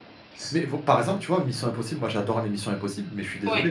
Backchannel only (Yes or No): Yes